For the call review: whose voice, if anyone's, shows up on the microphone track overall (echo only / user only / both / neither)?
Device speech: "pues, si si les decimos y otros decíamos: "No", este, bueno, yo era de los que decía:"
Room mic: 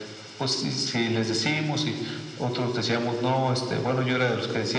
echo only